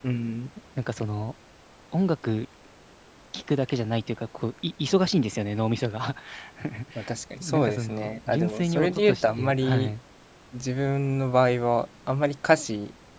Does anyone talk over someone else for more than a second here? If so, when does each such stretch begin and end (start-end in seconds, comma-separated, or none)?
7.4-9.9